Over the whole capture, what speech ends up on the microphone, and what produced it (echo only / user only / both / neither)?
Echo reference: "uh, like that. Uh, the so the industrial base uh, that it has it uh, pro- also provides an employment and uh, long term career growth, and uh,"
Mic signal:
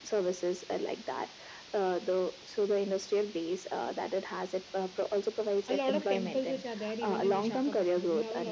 both